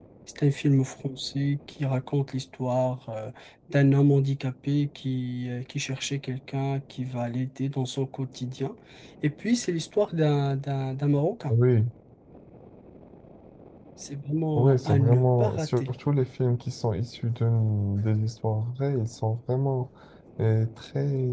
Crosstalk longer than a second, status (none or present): present